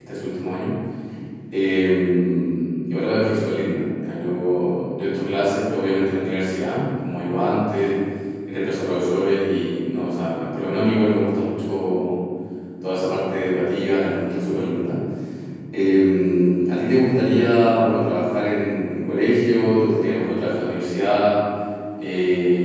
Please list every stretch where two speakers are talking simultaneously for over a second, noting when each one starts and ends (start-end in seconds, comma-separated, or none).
none